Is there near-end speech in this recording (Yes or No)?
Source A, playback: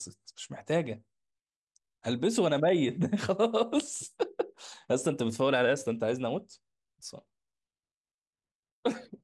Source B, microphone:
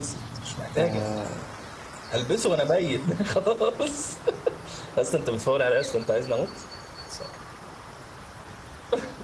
Yes